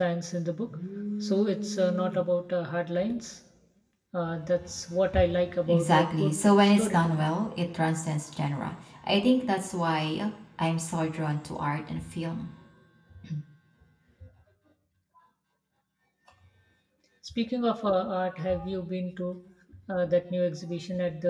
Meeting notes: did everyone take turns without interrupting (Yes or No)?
No